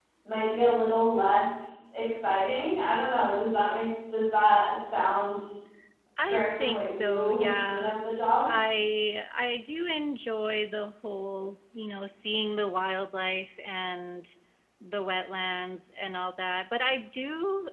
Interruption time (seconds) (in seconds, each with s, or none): 6.3 s